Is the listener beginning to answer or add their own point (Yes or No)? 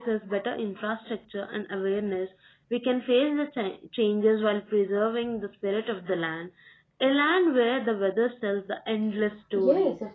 Yes